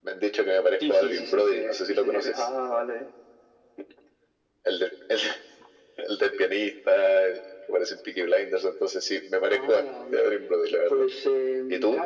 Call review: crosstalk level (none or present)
present